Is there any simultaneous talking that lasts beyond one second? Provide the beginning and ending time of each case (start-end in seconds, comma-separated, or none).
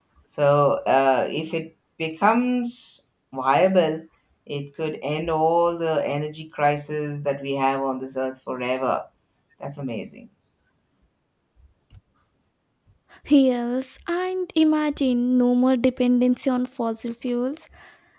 none